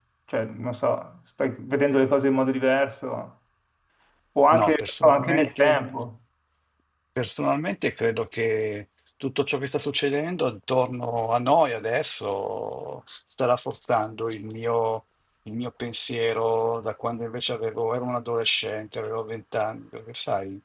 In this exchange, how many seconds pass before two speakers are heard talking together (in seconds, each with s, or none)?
4.6 s